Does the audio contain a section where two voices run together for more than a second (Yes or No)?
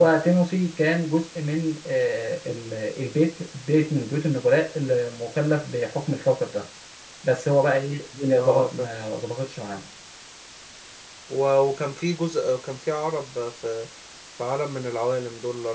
No